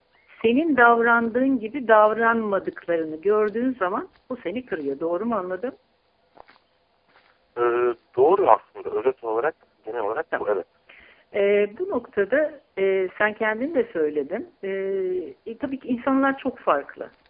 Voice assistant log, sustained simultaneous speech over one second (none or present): none